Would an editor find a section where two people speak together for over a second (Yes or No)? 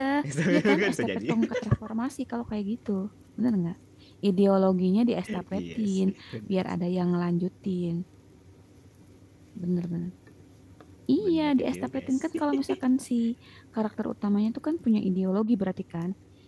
Yes